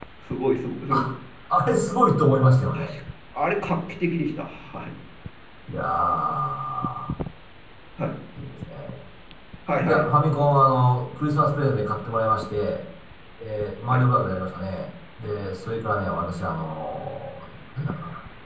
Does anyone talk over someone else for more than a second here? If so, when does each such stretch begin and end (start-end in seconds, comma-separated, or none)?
none